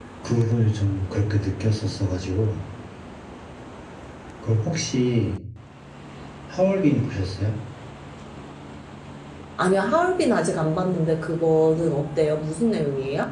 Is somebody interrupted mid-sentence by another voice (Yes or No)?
No